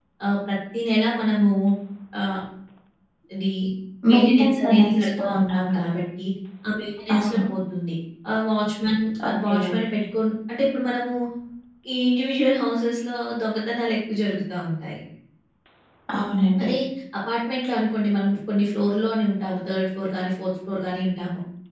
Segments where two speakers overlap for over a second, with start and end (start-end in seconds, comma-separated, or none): 4.1-6.0